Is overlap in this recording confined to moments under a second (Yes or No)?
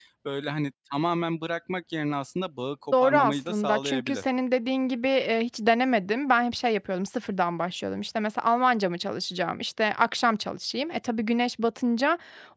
No